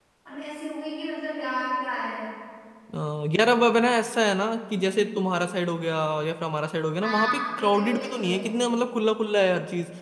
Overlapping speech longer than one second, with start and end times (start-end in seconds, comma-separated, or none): 7.0-8.6